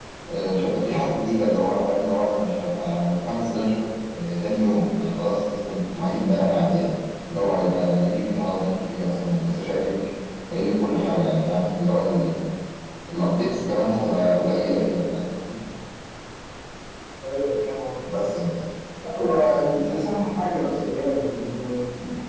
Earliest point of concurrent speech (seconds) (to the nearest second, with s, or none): none